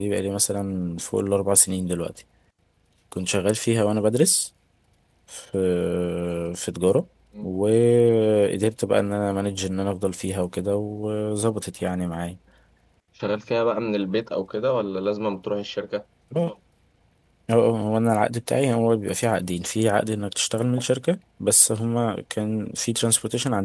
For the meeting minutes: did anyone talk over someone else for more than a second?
No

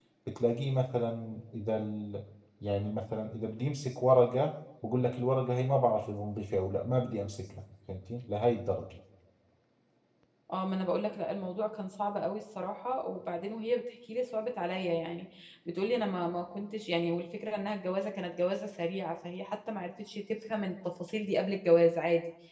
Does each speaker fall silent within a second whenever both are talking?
Yes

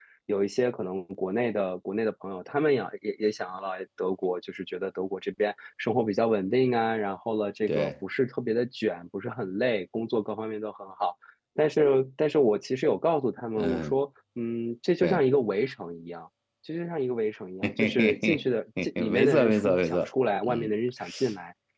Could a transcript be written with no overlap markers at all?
No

